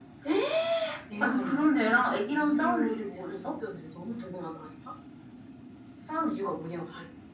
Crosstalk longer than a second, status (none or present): present